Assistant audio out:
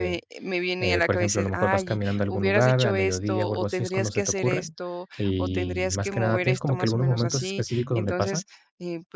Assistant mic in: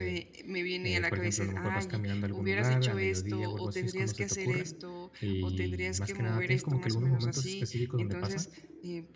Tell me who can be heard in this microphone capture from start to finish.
echo only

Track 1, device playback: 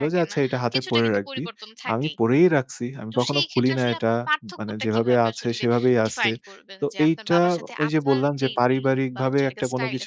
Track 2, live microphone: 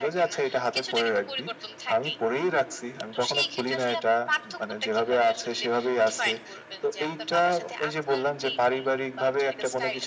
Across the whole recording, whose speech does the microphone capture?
echo only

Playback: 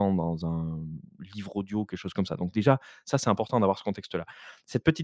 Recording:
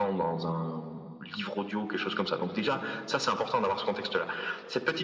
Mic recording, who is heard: echo only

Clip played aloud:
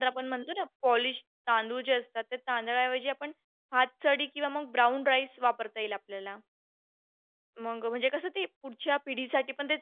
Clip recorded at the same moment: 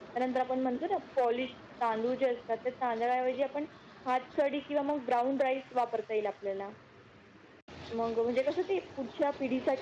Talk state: echo only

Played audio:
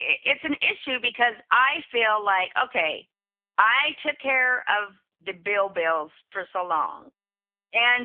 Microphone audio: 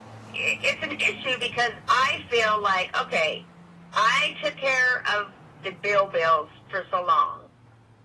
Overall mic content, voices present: echo only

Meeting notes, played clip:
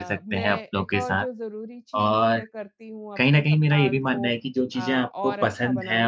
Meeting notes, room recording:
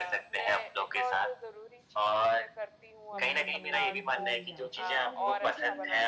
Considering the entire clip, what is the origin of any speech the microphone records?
both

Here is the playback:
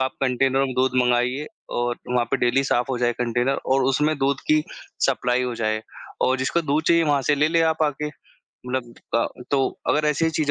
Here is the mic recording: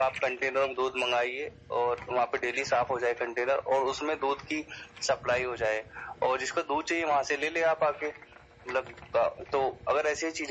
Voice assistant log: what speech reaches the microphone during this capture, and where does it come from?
echo only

